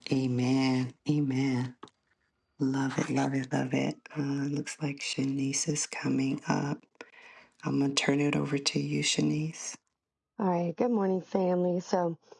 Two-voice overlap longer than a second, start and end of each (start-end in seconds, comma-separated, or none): none